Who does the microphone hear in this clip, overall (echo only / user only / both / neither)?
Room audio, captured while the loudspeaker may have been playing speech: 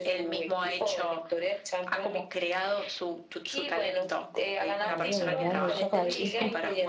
both